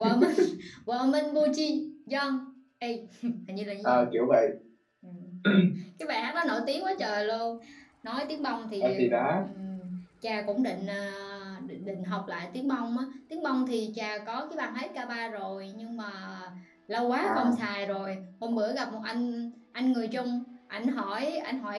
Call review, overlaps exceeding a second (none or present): none